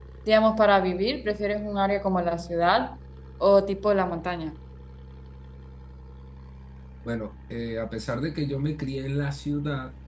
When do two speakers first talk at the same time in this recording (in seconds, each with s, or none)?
none